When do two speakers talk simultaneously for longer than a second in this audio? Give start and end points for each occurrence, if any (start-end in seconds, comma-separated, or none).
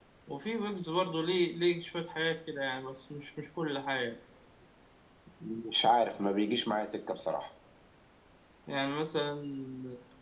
none